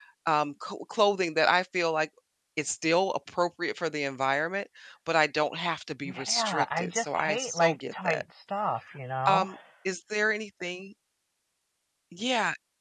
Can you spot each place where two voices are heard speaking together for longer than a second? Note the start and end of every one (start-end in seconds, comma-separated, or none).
6.0-8.2